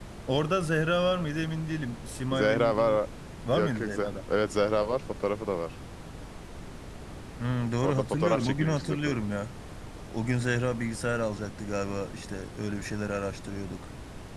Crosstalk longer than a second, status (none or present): present